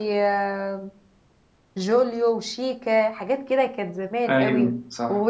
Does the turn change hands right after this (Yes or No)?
No